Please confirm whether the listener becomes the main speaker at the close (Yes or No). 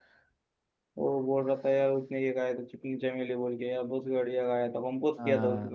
Yes